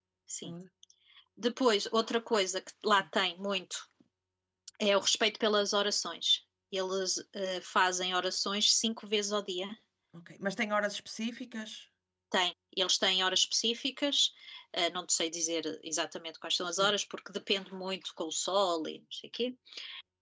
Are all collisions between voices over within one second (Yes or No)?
Yes